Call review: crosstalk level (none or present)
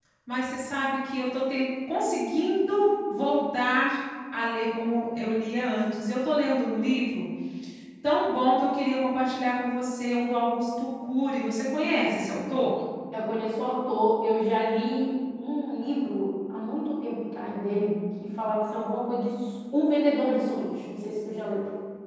none